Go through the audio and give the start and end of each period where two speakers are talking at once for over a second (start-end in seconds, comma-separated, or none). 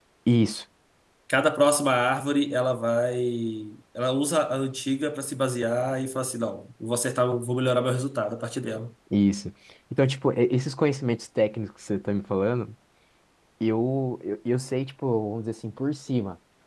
none